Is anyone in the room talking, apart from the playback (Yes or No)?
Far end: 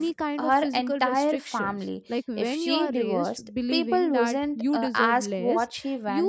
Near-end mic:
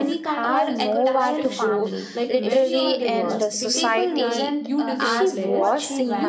Yes